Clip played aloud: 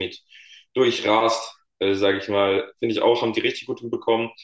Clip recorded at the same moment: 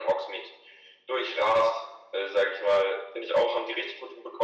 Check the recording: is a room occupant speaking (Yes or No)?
No